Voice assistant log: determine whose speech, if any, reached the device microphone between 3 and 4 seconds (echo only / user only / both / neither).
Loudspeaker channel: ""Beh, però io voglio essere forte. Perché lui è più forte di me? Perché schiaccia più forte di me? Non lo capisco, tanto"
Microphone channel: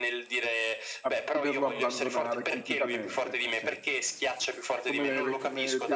both